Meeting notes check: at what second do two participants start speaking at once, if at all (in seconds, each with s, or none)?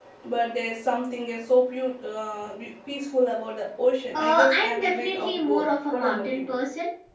4.1 s